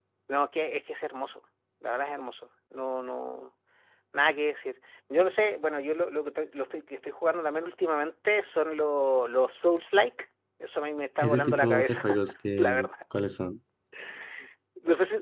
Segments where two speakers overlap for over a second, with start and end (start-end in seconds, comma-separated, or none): 11.2-12.9